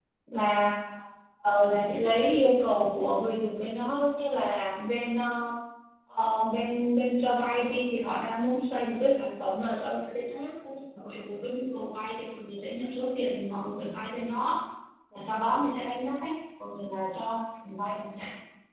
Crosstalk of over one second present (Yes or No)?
No